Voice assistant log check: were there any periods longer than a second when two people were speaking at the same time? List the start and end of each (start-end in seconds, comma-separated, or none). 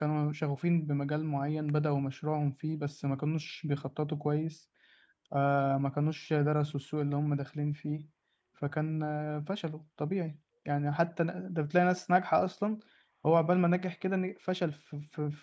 none